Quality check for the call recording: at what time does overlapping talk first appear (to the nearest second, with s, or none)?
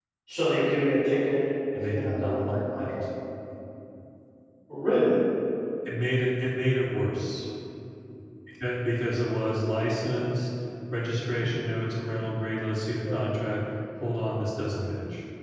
2 s